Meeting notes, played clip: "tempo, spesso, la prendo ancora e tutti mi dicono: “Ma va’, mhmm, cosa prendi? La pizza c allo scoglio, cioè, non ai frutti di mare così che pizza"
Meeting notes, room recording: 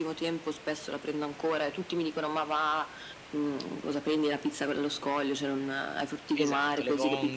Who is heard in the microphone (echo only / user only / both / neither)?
both